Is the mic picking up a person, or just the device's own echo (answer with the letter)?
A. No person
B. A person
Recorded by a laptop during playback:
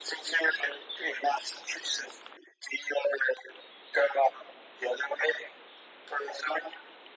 A